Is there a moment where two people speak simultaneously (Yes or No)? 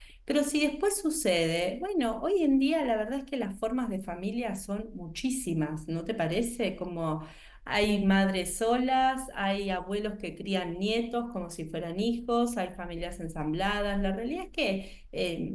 No